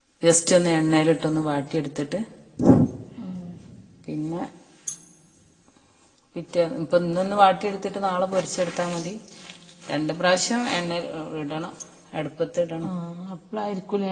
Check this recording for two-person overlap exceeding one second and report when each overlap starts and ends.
none

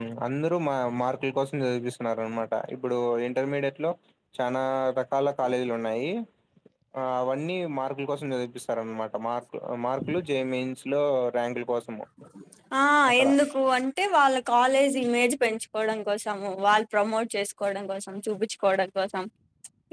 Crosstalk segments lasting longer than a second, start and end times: none

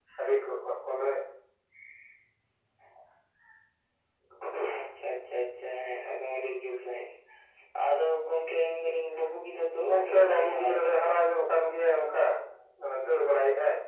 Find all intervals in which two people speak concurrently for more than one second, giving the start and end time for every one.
9.9-11.1

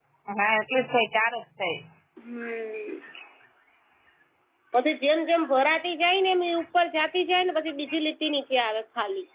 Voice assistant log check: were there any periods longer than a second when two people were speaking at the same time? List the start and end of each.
none

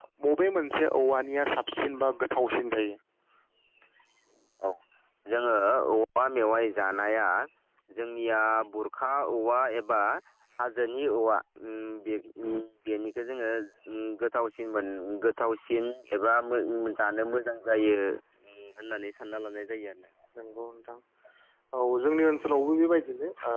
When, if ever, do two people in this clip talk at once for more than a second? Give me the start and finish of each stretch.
none

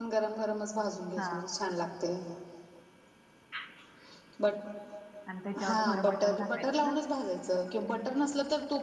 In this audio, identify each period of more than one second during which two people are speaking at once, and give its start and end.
5.7-6.9

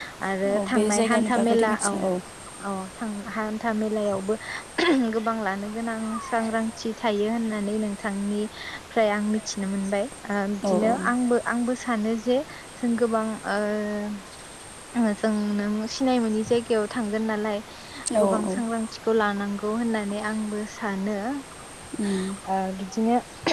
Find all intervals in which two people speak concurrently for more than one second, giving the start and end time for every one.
0.6-1.9

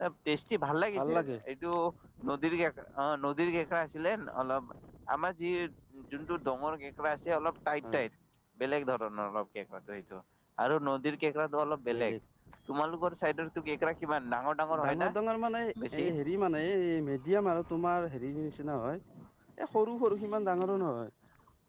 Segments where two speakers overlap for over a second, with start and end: none

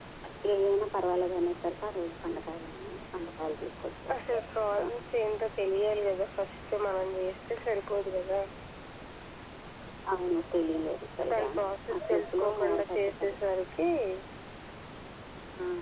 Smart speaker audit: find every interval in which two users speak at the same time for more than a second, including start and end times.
12.0-13.3

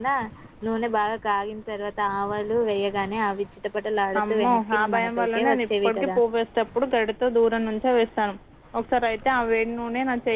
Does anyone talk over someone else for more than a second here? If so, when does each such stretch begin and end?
4.2-6.2

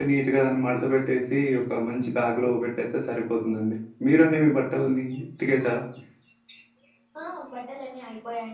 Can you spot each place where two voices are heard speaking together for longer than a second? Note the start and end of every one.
none

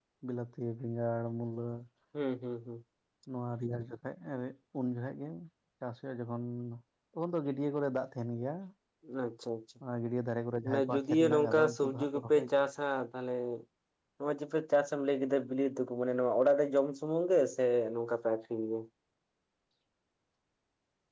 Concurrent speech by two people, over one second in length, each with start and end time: 10.9-12.7

